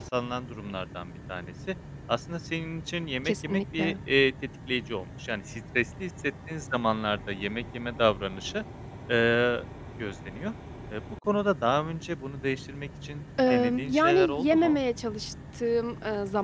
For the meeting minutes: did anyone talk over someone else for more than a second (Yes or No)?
Yes